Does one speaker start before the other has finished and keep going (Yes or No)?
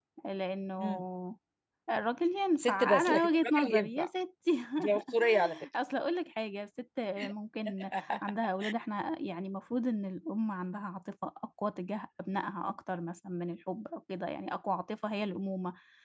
Yes